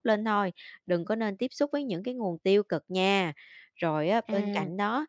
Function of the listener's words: listening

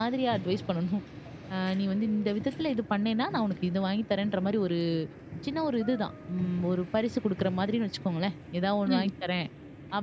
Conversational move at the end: listening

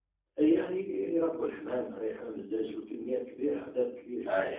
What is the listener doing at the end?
listening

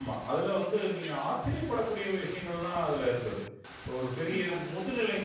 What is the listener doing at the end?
listening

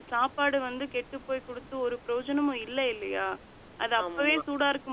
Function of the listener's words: listening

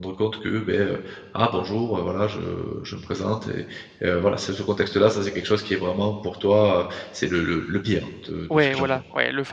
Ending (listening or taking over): taking over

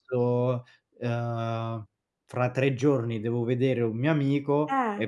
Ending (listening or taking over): listening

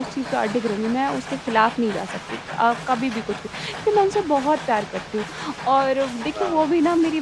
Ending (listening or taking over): listening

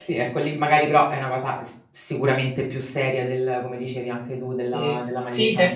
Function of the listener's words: taking over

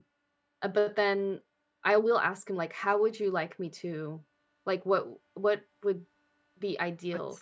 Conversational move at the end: listening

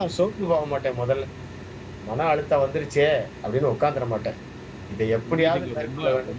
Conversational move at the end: taking over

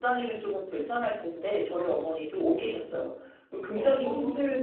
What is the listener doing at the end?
listening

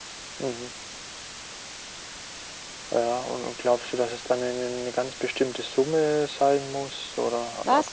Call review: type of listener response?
taking over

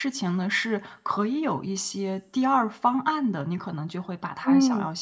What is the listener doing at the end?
listening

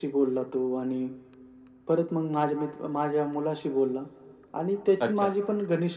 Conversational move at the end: listening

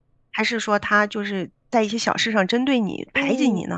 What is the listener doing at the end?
taking over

